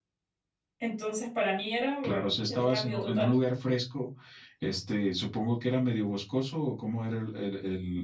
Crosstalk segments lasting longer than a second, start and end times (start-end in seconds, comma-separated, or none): 2.0-3.4